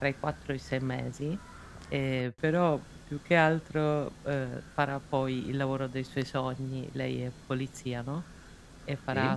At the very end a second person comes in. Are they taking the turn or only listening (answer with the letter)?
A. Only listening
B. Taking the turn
A